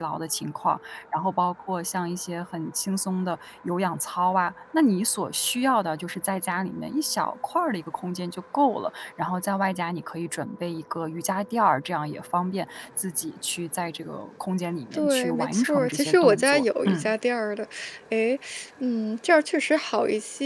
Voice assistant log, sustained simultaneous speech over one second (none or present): present